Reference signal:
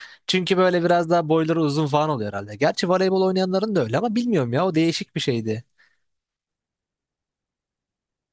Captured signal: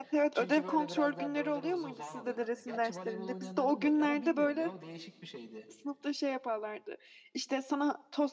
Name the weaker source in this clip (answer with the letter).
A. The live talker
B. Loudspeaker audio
B